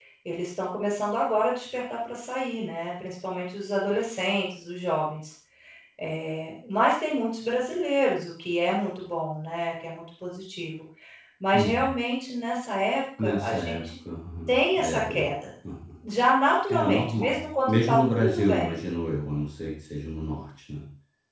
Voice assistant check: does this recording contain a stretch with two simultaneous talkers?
Yes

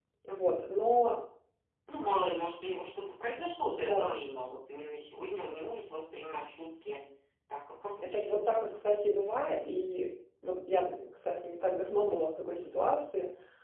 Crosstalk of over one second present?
No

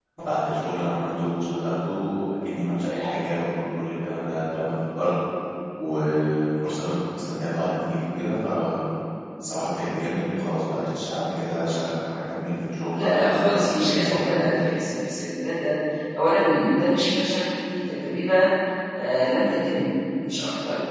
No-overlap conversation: No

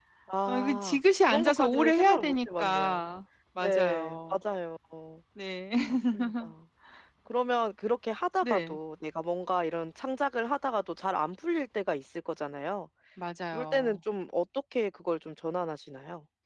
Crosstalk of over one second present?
Yes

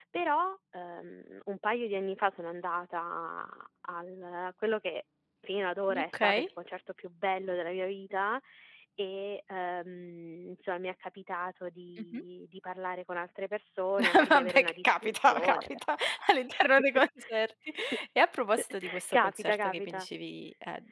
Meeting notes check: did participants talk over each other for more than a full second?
Yes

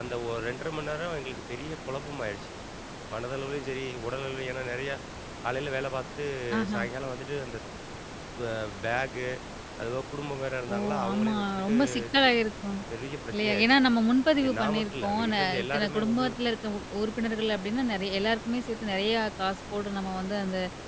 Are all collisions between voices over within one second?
No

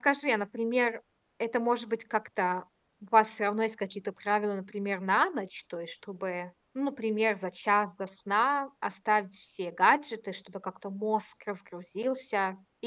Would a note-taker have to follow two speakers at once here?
No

